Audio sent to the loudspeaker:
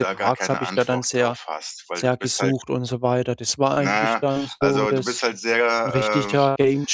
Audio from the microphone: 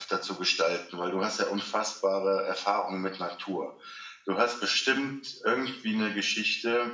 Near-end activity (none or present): present